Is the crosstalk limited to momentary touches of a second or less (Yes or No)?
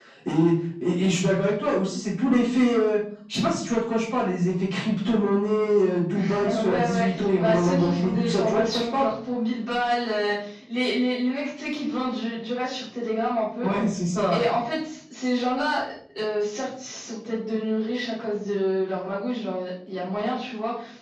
No